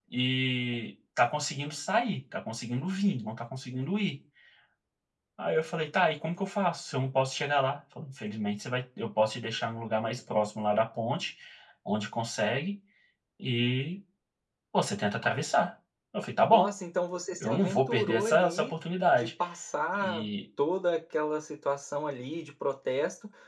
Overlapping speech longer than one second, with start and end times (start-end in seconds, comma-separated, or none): 17.4-18.7